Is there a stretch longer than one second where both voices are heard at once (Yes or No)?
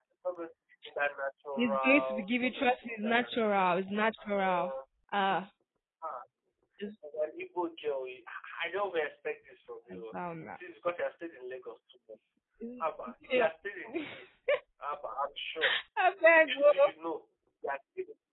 Yes